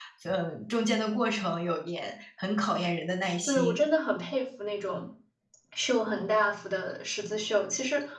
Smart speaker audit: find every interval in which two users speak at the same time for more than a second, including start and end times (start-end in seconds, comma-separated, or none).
none